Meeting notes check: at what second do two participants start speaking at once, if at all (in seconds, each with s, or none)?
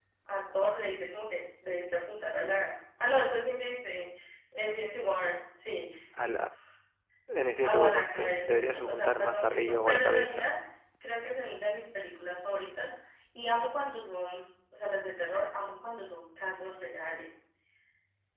7.6 s